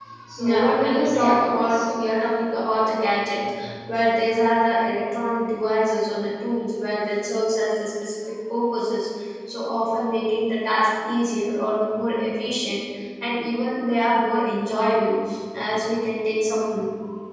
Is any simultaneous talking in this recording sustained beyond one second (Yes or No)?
Yes